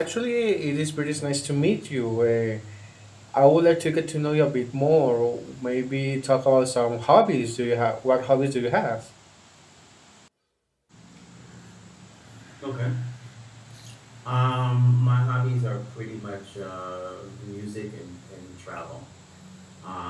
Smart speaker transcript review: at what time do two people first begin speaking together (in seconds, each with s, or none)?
none